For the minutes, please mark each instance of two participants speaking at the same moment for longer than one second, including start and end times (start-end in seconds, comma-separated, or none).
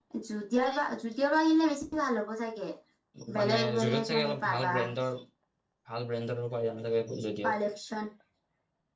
3.4-4.8